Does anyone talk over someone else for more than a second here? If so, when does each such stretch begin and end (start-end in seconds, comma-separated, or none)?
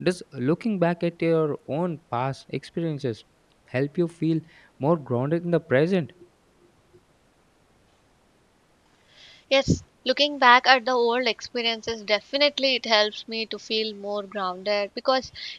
none